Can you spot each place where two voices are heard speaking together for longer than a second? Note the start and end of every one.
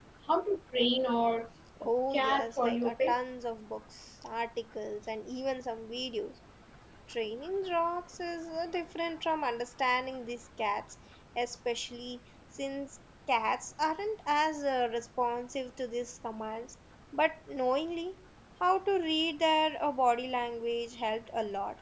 1.8-3.3

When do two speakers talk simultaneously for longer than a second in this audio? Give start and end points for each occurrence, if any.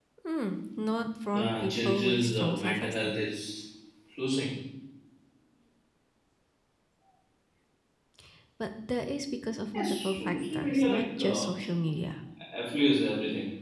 1.3-3.2, 9.7-11.5

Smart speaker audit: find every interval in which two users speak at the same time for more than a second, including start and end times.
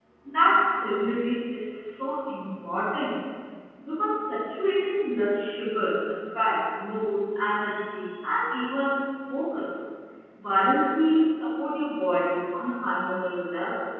none

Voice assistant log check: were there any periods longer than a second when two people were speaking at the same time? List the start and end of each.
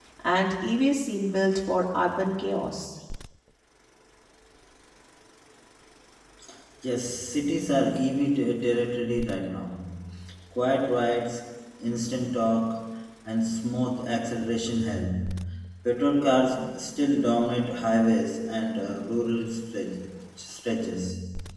none

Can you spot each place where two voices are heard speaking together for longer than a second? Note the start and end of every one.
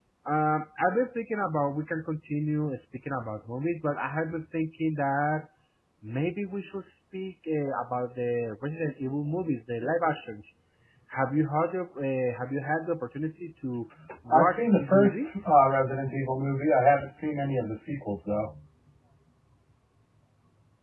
14.3-15.6

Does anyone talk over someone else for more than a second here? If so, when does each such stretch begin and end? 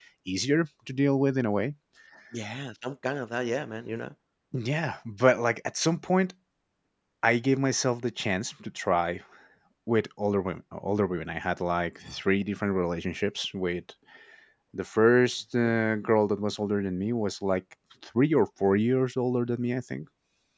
none

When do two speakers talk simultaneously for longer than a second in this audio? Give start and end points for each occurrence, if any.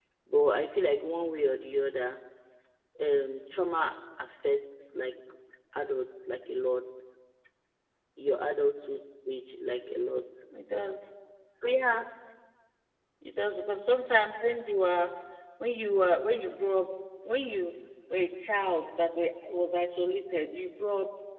none

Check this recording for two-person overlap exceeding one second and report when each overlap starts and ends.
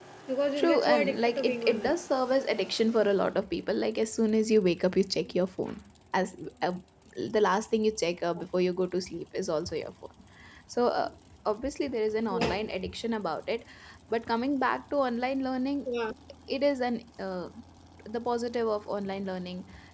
0.6-1.9

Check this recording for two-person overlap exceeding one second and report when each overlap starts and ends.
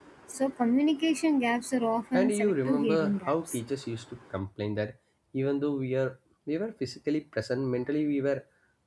2.1-3.6

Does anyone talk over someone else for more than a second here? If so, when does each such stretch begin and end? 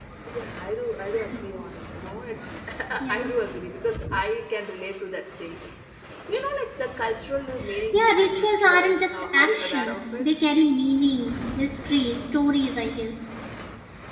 7.9-10.3

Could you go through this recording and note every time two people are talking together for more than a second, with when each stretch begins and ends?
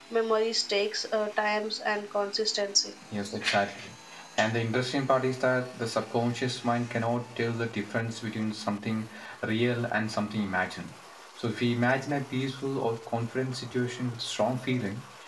none

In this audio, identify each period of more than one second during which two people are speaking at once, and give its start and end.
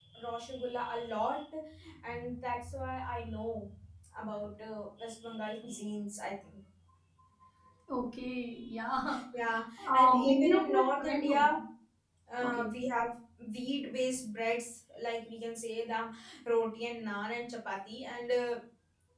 9.8-11.4

